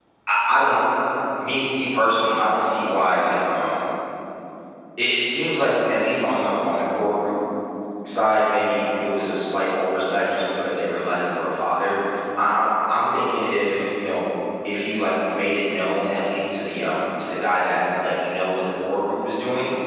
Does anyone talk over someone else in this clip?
No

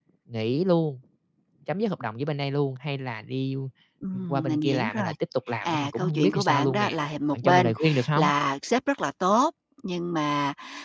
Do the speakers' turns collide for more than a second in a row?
Yes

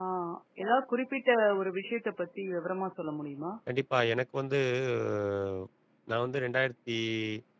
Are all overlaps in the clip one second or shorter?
Yes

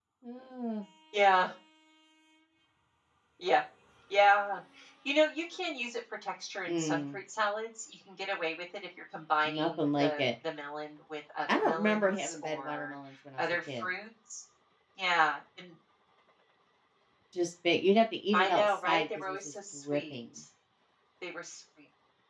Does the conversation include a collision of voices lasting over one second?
Yes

